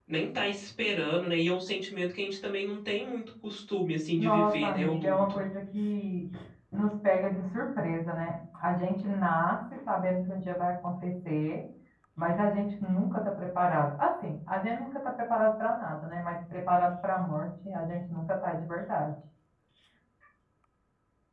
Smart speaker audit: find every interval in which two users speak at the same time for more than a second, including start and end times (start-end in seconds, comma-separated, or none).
4.2-5.4